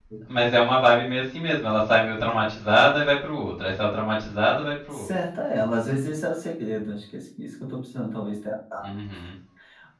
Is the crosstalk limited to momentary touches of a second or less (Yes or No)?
Yes